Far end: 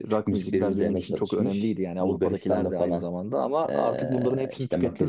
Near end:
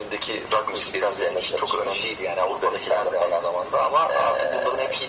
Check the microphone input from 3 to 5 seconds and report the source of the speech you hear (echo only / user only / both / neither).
echo only